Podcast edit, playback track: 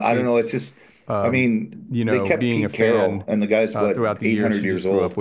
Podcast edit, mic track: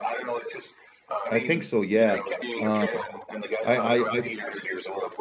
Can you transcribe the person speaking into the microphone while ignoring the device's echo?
I think so. Yeah. Um, I I, I,

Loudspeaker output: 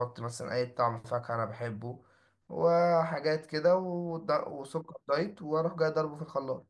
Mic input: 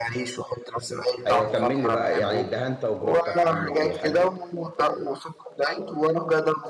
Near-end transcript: ايوه كمل لي بقى يعني الدهان تجربتك عنه ايه حلوة

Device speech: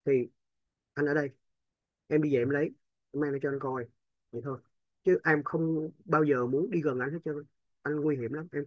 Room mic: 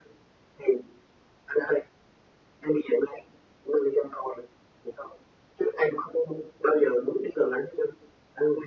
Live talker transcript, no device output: none

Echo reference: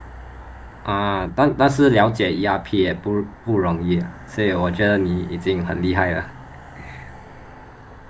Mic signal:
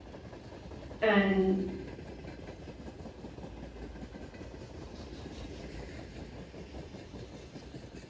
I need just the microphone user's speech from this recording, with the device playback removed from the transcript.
嗯，

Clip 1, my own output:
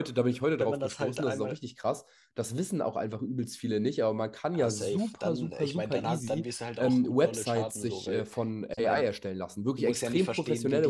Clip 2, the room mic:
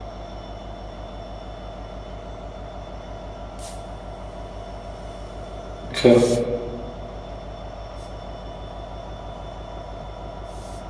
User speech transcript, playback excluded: okay.

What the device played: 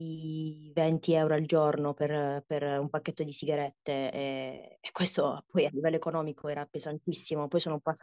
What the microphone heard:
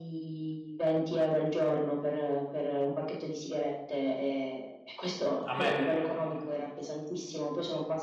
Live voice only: a me.

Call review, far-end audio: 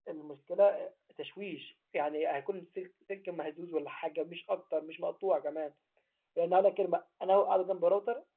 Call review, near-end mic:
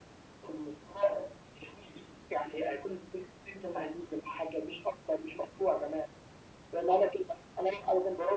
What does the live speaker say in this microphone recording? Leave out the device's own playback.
none

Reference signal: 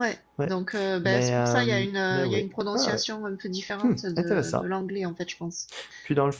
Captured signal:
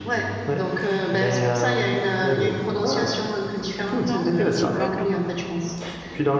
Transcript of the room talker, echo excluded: Non, un petit peu quand même.

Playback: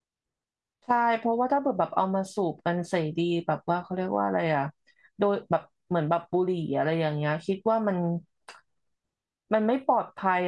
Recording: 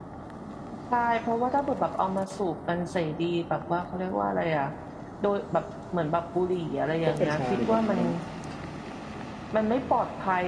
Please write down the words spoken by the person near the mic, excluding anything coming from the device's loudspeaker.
เพราะกัญชาเนี่ยมันมัน

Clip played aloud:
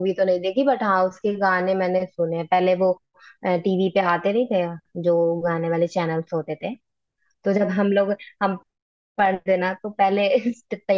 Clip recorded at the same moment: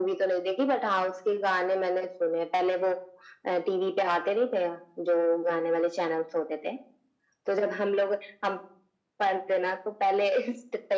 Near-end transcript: none

